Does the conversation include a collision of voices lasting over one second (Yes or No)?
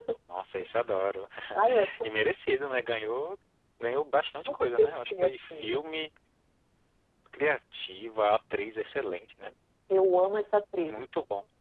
Yes